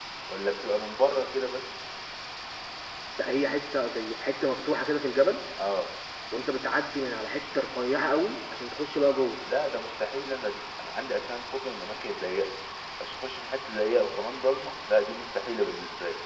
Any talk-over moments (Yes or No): No